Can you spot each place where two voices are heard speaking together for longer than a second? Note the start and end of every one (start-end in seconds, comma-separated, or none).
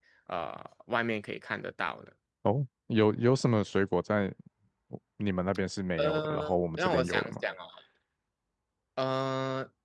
6.0-7.4